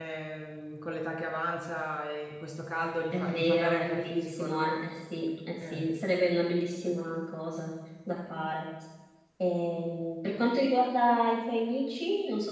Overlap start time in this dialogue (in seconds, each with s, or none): 3.1 s